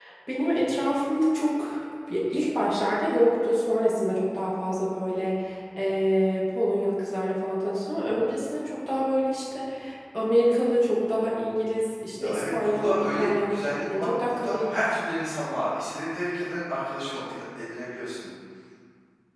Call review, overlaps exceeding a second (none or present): present